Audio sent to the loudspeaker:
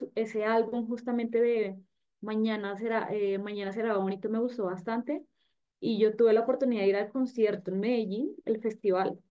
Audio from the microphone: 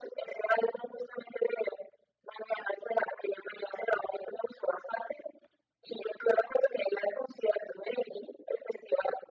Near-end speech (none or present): none